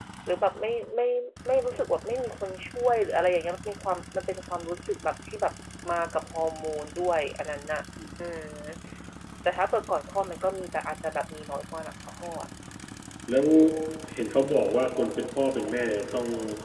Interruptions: none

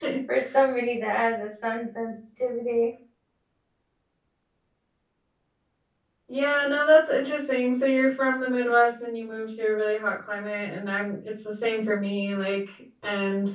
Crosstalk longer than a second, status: none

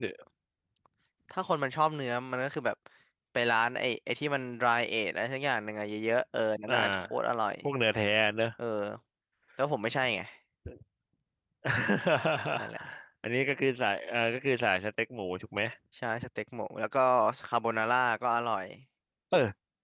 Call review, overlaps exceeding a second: none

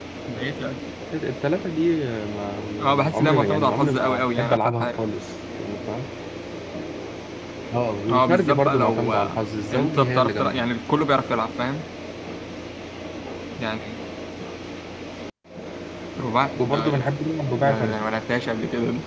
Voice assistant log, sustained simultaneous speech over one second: present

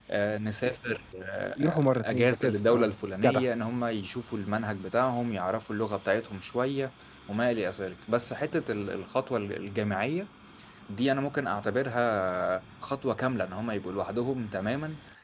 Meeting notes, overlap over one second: present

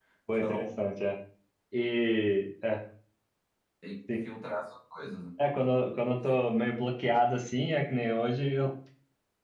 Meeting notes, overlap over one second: none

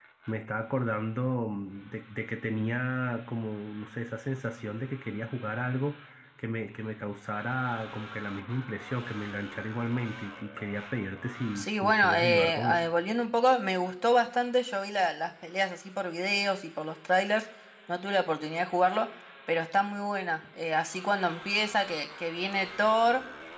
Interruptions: present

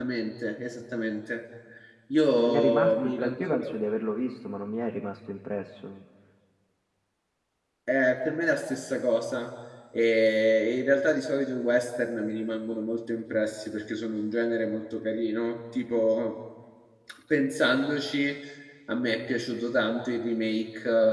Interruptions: present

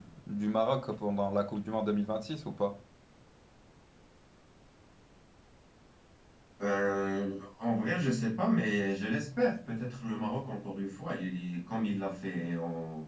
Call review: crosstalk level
none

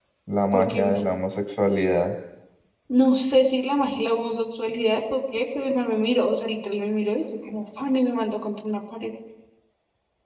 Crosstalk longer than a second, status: none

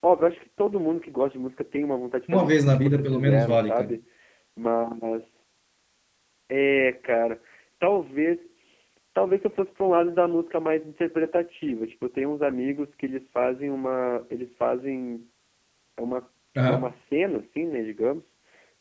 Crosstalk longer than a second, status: present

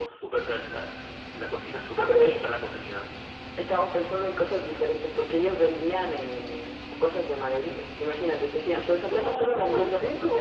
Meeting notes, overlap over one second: present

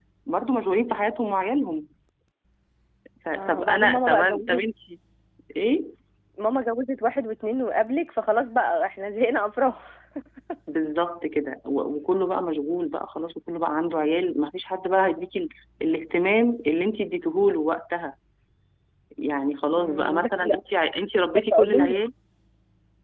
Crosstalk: present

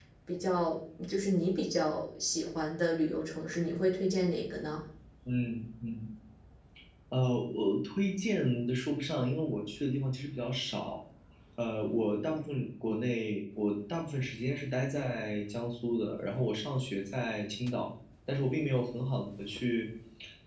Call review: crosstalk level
none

